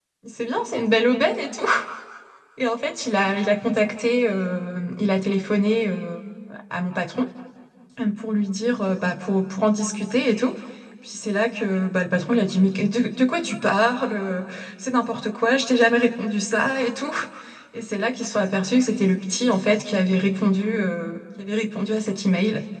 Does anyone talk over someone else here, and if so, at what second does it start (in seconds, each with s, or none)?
none